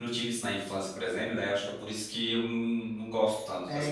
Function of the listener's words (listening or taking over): taking over